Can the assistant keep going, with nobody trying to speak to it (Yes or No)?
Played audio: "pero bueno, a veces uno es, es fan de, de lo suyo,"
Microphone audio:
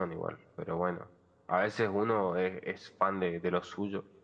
Yes